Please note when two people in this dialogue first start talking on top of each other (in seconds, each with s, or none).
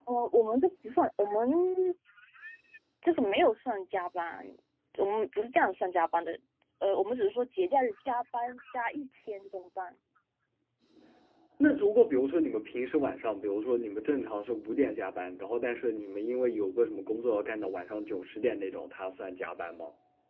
none